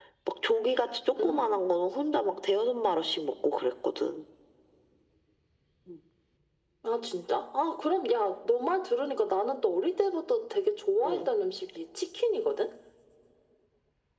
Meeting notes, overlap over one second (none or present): none